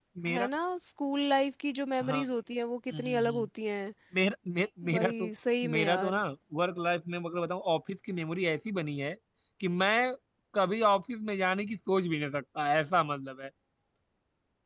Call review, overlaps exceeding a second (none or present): none